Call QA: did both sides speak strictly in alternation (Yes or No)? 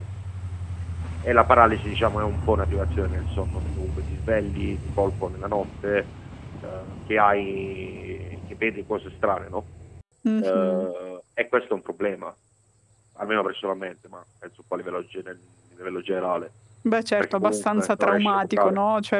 No